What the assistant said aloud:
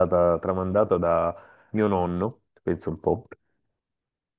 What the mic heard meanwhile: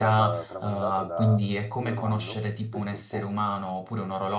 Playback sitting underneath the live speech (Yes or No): Yes